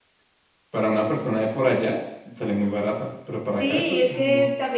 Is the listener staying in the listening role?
No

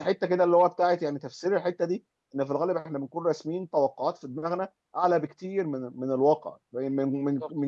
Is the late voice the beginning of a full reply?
No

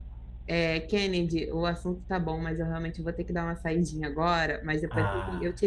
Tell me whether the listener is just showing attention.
Yes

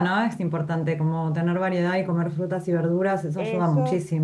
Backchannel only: No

